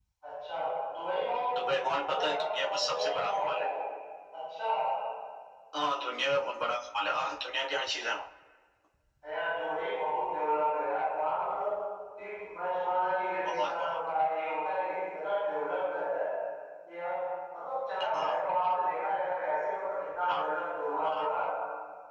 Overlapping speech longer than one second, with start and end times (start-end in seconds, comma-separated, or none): 1.6-3.6